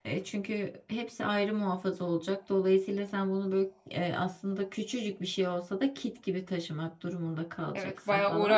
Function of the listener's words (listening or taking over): taking over